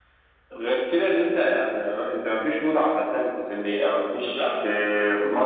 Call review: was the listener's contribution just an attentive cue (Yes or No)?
Yes